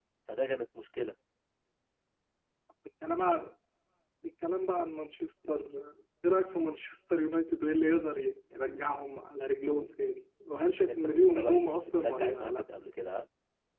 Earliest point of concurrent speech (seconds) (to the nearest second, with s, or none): 11 s